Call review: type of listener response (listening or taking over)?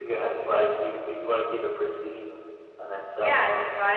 taking over